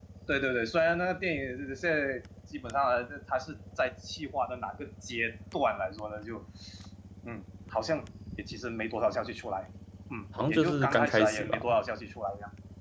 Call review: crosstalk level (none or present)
present